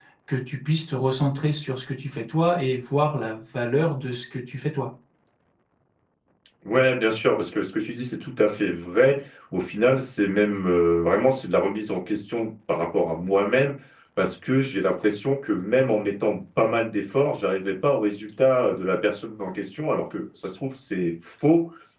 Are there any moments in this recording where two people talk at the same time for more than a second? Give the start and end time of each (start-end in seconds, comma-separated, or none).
none